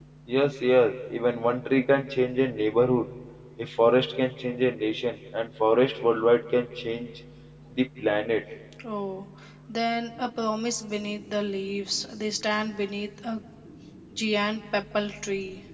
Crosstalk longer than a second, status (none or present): none